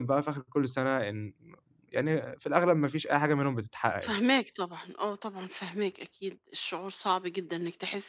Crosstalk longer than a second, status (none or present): none